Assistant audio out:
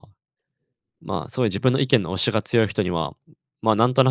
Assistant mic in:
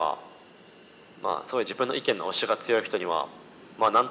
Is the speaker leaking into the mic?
Yes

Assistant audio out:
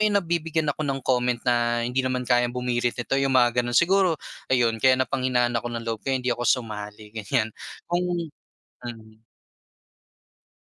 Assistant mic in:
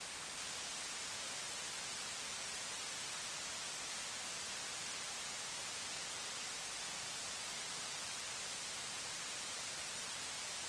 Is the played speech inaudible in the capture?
Yes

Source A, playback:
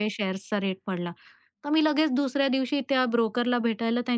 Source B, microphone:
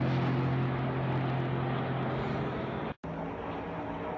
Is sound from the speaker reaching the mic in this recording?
No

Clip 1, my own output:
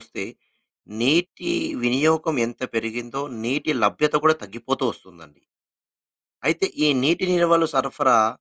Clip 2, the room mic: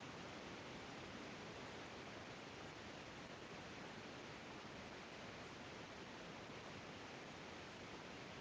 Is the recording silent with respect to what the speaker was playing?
Yes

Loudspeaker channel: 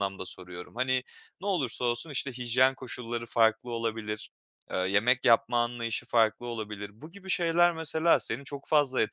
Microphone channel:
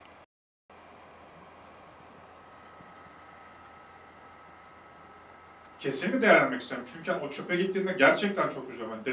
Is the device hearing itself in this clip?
No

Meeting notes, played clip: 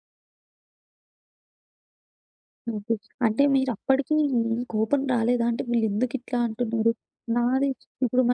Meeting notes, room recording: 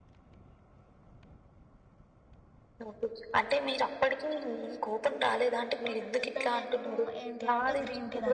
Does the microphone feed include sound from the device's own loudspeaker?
Yes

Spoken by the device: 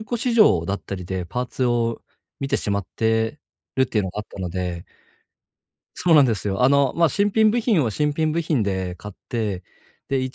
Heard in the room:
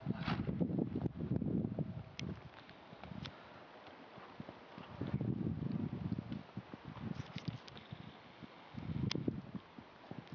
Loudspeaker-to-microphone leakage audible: No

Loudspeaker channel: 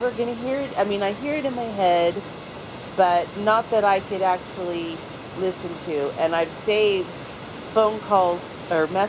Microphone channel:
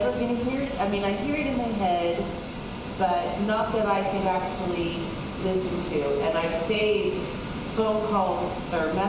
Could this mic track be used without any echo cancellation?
No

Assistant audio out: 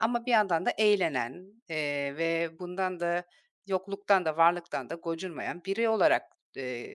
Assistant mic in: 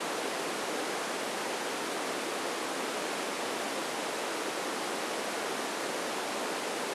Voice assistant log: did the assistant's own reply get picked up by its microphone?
No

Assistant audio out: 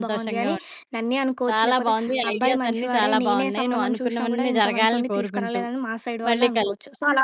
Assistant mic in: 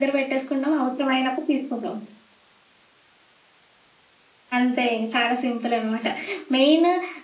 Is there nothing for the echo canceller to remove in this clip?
Yes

